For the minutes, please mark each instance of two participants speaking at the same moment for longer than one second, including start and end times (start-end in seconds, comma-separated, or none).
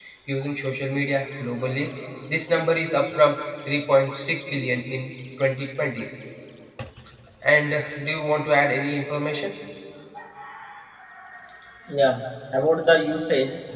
none